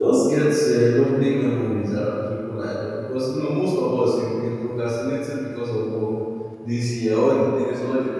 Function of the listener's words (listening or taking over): listening